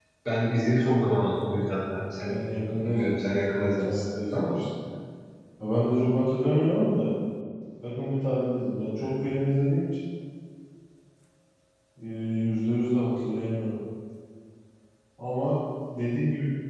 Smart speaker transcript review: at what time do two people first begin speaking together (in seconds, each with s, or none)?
2.9 s